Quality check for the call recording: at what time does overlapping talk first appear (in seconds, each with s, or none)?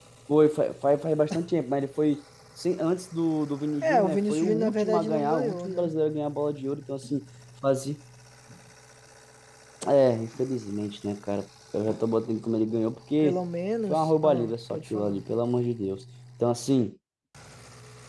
3.8 s